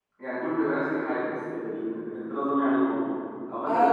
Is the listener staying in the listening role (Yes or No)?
No